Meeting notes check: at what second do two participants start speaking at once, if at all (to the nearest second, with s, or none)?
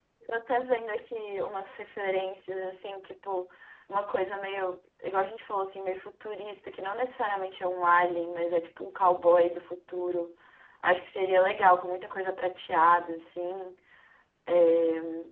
none